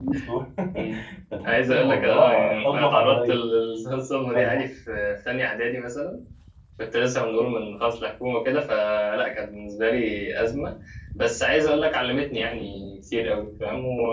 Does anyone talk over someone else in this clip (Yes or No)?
Yes